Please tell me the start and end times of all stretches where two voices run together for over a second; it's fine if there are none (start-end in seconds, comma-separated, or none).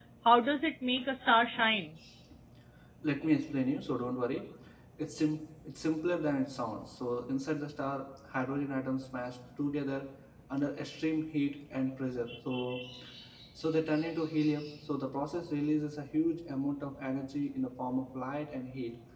none